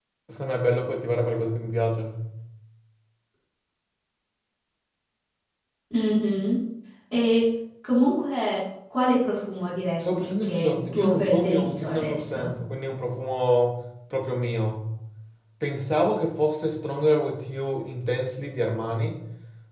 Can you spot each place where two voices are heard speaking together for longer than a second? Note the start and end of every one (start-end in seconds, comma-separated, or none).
10.0-12.5